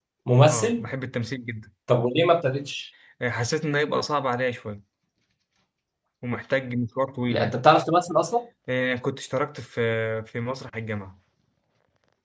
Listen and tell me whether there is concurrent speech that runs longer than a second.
No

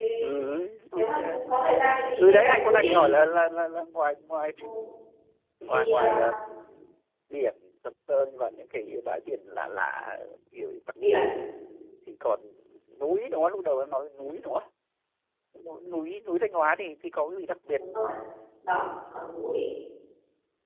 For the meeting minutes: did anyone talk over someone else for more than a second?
Yes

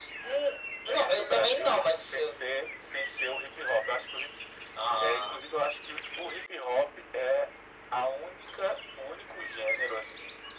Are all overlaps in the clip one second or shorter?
No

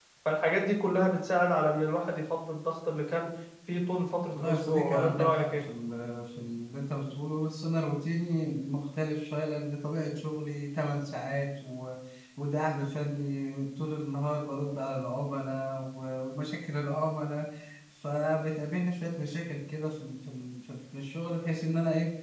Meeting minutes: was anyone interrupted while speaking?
Yes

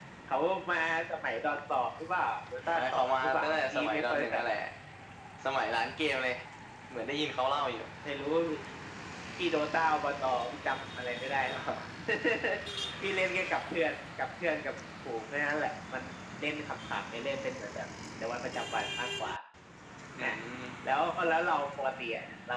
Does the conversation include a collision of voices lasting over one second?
Yes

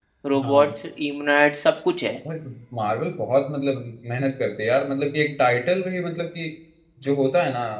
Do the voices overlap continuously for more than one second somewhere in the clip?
No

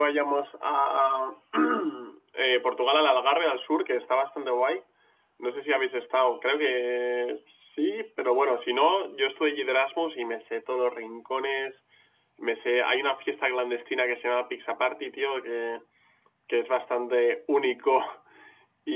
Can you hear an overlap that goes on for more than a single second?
No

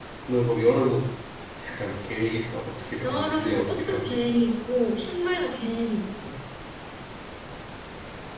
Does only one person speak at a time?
No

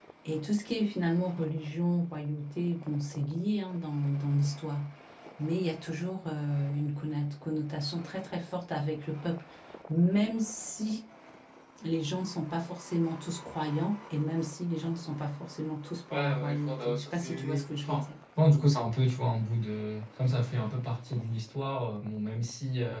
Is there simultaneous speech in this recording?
Yes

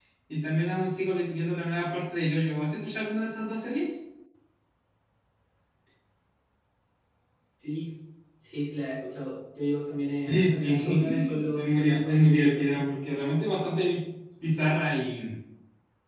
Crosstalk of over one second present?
Yes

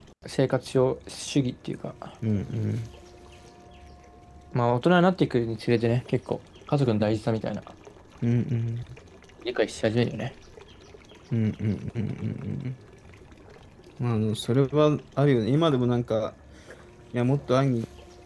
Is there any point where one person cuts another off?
No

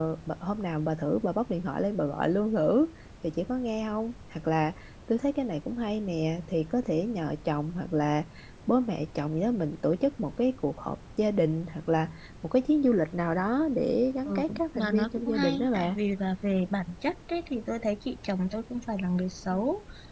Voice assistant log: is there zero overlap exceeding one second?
No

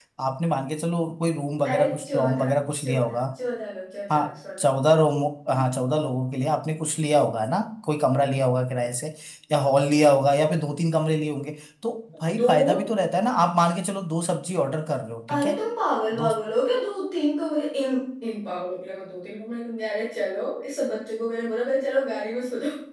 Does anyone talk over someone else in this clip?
Yes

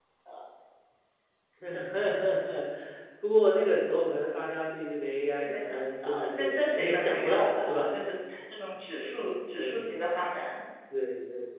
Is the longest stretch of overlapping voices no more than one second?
No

